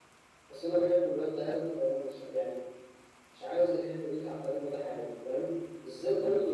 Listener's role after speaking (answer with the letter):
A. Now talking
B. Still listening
B